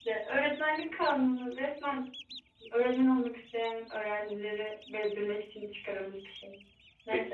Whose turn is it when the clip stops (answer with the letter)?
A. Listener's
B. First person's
A